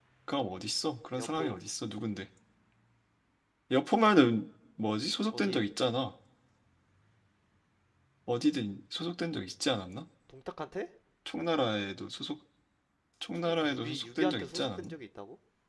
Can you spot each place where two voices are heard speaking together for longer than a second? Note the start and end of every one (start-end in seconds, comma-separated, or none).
13.3-14.9